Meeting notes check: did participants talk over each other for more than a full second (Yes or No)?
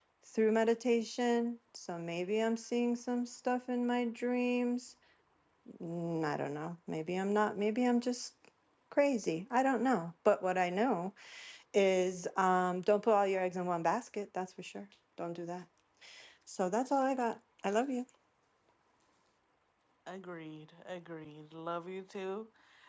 No